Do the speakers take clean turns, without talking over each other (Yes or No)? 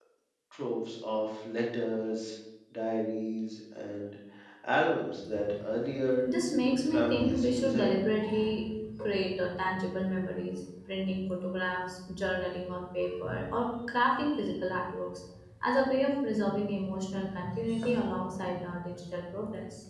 No